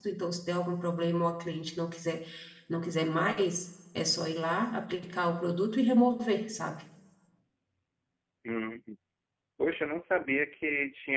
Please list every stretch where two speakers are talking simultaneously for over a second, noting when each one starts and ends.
none

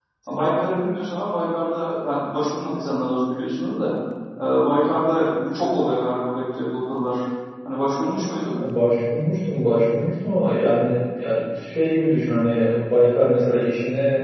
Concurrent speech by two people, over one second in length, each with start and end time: none

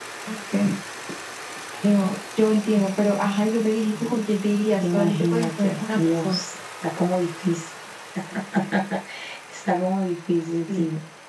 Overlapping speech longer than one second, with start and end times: 4.8-6.4

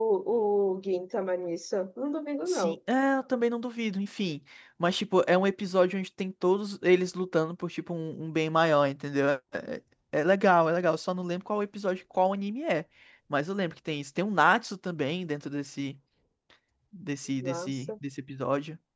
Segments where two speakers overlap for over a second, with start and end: none

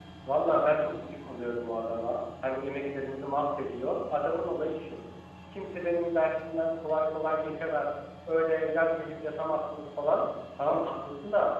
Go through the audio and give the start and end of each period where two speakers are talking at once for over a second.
none

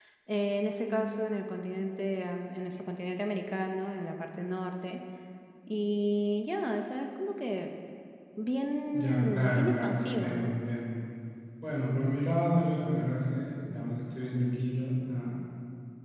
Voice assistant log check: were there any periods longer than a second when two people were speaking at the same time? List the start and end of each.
8.9-10.6

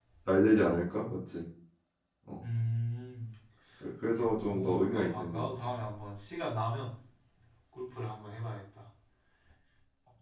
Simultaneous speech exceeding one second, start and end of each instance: 4.1-5.7

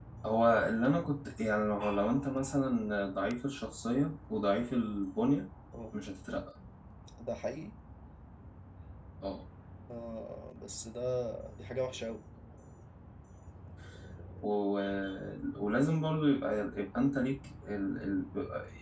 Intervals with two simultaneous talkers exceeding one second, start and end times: none

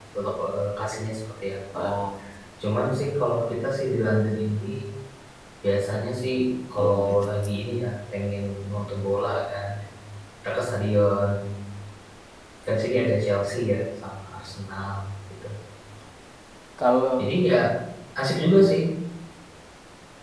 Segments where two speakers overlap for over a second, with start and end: none

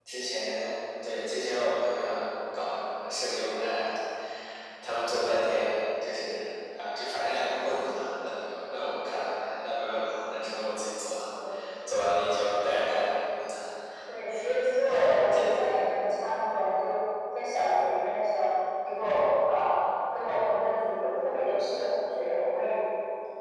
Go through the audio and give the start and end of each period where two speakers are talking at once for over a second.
none

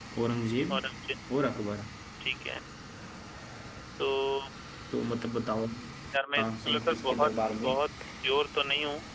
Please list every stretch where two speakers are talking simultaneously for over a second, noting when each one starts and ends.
6.3-7.7

